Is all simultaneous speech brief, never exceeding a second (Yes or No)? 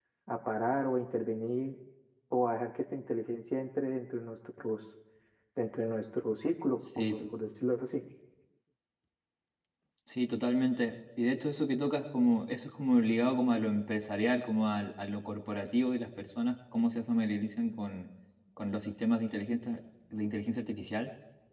Yes